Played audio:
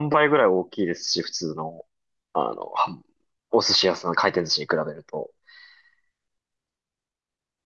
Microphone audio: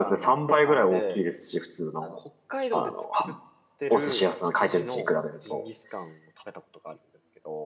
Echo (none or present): present